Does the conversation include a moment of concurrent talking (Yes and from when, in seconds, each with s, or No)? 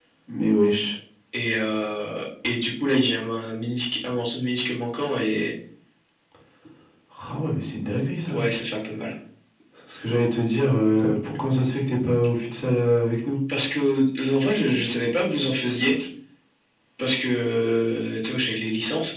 No